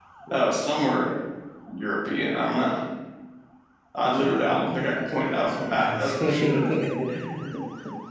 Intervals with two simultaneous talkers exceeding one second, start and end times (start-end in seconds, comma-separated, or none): 4.2-6.6